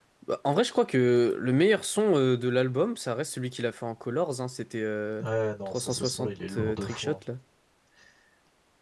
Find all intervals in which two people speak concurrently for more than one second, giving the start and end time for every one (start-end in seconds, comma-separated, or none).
5.7-7.2